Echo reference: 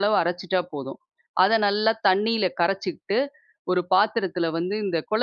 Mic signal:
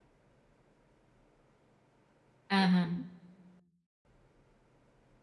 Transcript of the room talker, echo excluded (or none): ஆஹ.